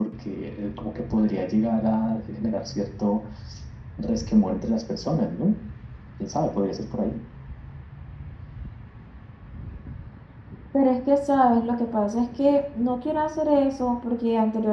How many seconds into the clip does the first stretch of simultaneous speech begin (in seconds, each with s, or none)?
none